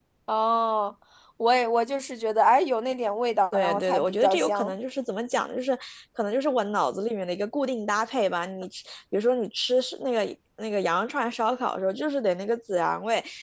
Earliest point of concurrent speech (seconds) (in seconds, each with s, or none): 3.5 s